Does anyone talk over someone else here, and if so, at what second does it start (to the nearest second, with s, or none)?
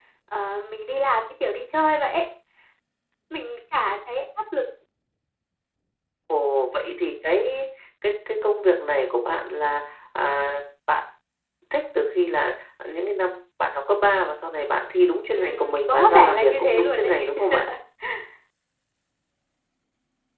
15 s